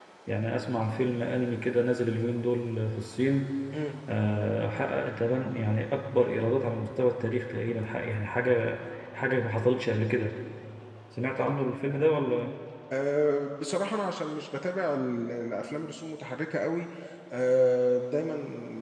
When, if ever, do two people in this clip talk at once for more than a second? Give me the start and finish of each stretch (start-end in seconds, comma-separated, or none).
none